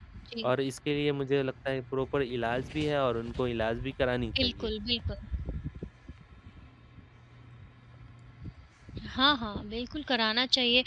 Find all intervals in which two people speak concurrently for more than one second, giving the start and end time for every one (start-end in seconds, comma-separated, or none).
none